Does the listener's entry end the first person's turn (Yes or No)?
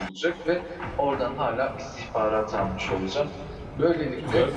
No